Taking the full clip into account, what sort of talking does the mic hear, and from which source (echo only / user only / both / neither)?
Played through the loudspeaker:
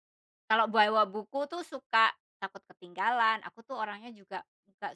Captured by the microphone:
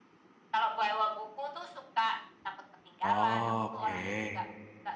both